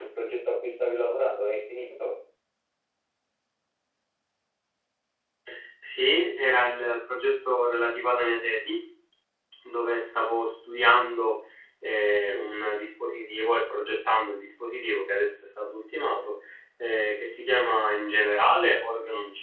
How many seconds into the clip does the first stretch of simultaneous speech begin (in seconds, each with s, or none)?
none